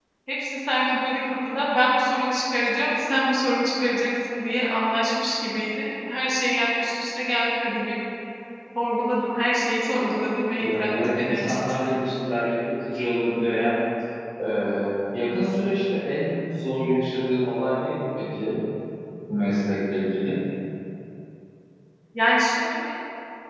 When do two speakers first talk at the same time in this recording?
10.6 s

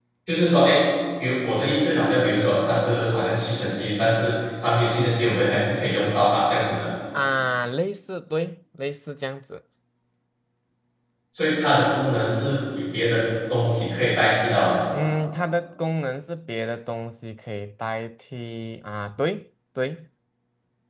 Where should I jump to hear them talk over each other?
none

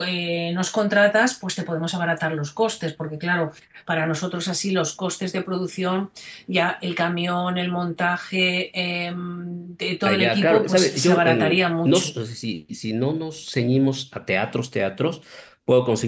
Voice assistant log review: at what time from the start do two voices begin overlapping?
10.1 s

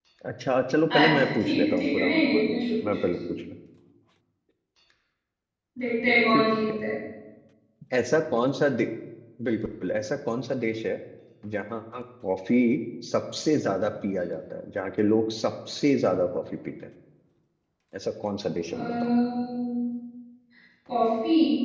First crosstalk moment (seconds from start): 0.9 s

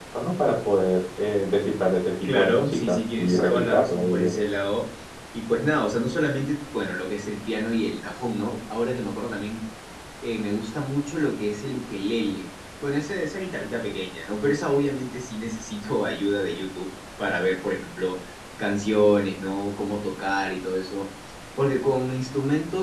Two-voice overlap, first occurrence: 2.2 s

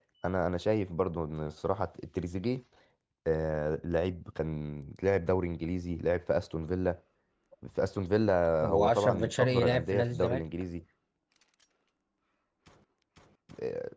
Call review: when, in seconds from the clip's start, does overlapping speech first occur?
8.6 s

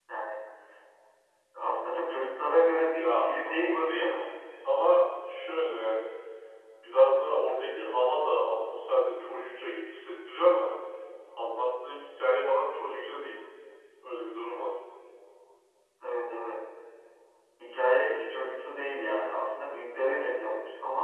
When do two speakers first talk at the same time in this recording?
2.9 s

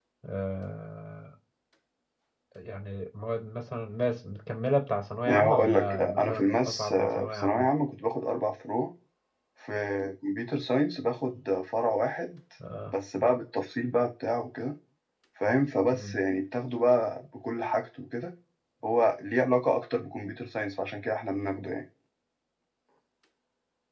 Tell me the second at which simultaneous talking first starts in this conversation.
5.3 s

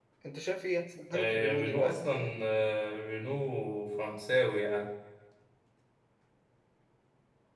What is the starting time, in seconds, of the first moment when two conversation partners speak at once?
1.1 s

